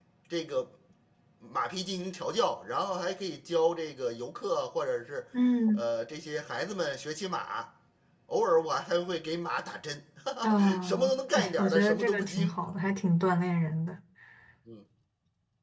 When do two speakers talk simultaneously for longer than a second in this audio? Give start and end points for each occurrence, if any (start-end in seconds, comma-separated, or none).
10.4-12.5